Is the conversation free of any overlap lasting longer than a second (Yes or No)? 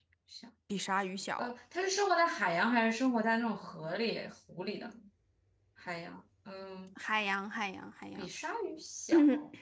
Yes